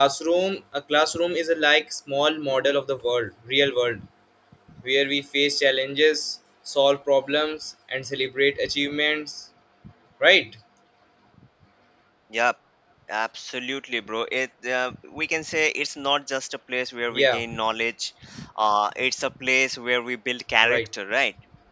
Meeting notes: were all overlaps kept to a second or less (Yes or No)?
Yes